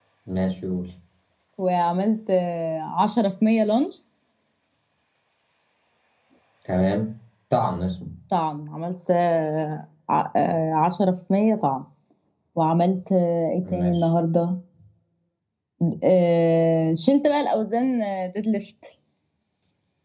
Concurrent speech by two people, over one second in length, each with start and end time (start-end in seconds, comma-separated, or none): none